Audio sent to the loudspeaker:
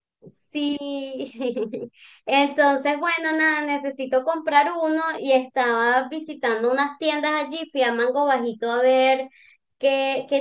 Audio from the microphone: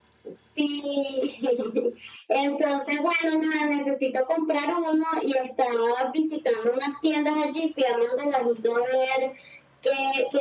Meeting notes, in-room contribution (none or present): none